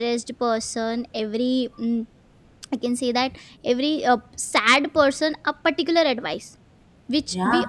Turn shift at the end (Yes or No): No